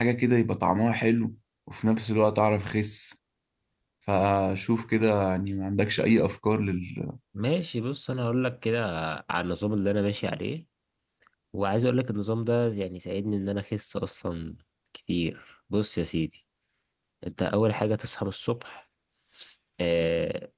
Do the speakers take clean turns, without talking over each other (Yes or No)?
Yes